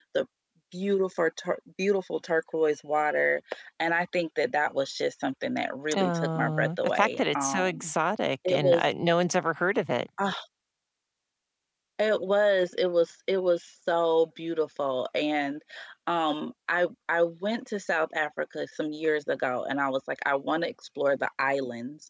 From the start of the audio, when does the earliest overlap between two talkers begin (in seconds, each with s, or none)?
6.0 s